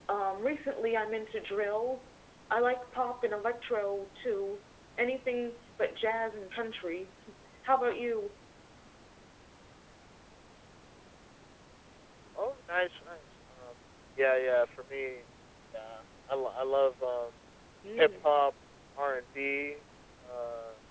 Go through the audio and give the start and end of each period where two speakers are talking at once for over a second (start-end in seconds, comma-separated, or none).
none